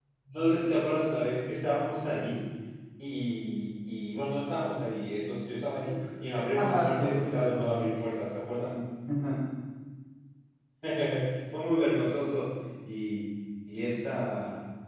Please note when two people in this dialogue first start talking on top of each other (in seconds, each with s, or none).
6.6 s